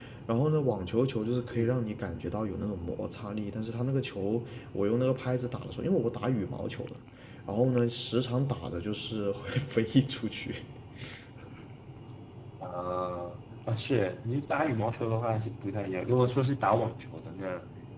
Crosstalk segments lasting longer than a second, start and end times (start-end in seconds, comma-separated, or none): none